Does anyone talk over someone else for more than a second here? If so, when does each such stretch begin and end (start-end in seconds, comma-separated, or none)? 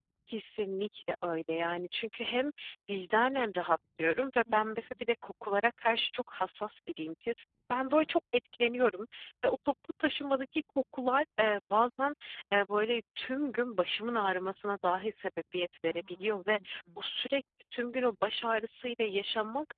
none